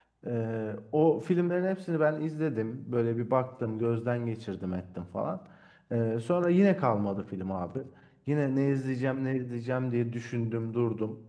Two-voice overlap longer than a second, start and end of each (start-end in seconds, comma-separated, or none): none